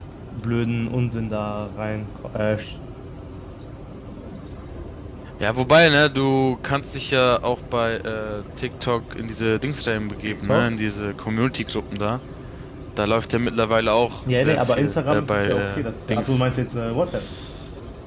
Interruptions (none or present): present